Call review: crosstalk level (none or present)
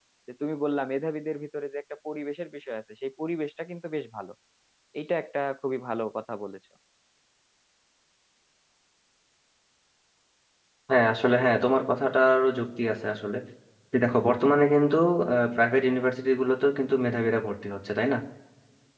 none